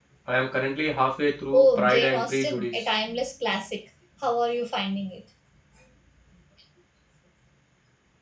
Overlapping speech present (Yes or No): Yes